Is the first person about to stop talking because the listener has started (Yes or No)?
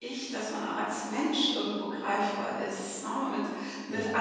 No